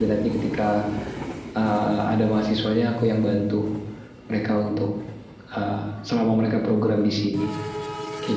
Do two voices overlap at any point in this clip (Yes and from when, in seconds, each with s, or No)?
No